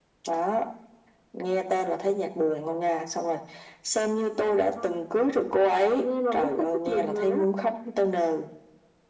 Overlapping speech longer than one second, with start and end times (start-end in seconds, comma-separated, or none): 6.0-7.4